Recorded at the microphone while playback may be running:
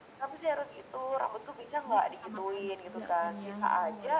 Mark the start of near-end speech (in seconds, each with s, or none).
1.8 s